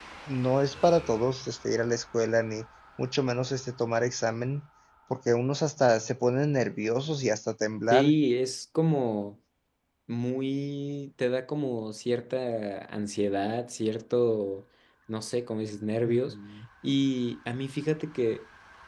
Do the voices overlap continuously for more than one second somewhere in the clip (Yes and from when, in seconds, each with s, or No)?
No